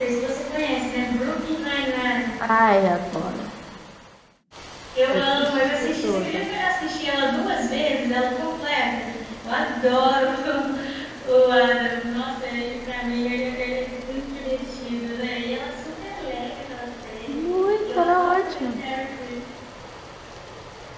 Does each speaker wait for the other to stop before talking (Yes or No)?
No